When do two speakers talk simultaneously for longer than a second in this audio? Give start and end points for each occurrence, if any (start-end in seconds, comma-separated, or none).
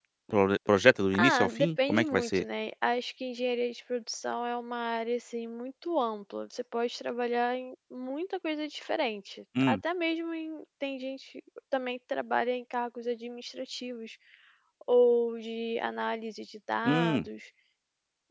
1.2-2.4